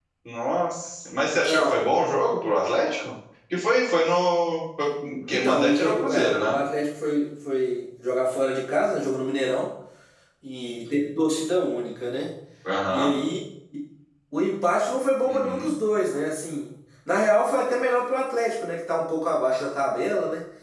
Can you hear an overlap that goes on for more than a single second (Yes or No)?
Yes